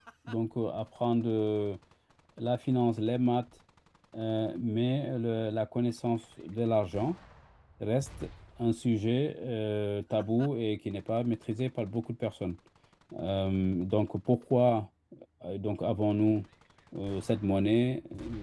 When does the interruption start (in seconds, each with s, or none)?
none